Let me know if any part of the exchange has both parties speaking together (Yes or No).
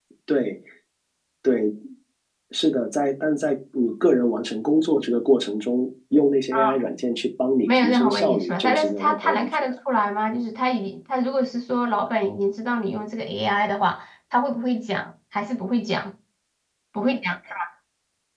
Yes